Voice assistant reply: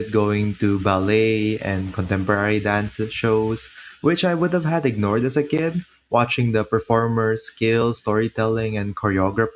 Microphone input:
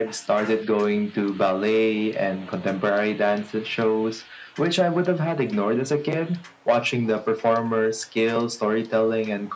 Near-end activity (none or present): none